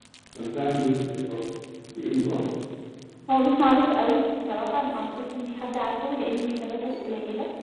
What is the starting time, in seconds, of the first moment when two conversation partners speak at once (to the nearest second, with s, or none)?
none